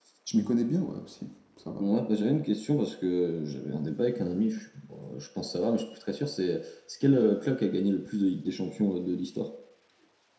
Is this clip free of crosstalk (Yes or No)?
Yes